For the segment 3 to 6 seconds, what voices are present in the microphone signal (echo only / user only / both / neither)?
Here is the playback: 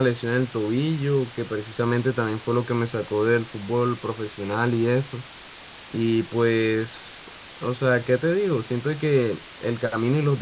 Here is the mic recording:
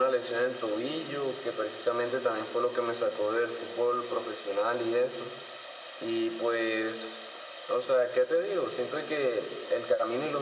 echo only